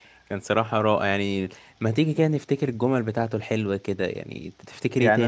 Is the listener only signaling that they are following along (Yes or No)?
No